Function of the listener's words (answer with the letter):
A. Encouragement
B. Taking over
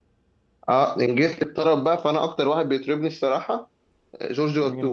B